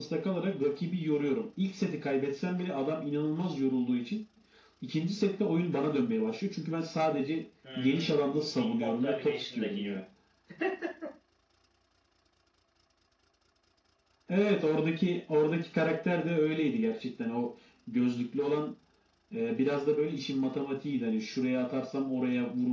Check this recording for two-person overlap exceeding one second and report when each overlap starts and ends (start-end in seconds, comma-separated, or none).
7.8-10.0